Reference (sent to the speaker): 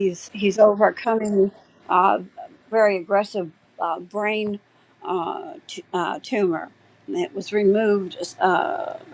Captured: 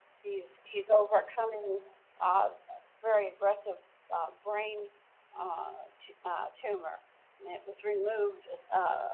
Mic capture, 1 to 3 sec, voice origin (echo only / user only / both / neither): echo only